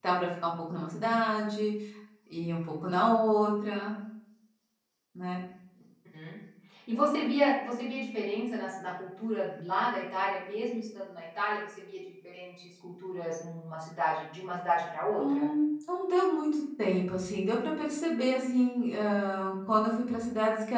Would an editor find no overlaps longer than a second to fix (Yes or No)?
Yes